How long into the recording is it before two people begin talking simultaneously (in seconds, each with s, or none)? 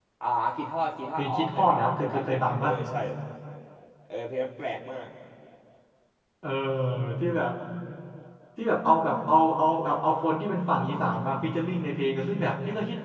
1.2 s